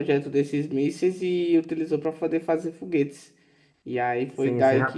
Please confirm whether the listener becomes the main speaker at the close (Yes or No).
Yes